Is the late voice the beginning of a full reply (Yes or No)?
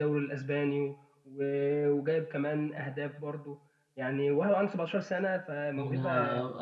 Yes